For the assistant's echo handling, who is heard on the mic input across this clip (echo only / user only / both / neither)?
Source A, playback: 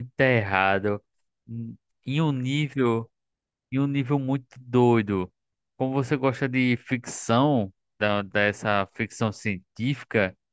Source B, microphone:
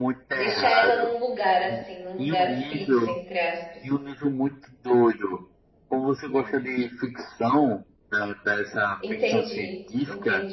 both